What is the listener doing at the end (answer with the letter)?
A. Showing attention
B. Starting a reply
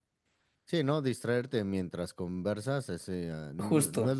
A